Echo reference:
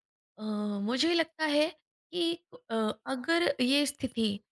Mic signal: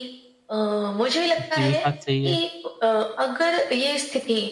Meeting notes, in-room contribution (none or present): present